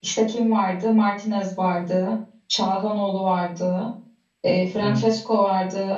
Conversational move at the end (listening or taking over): listening